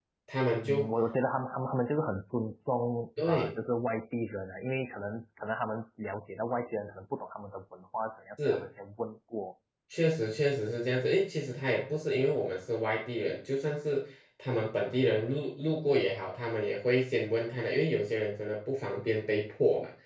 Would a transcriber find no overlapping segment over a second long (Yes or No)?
Yes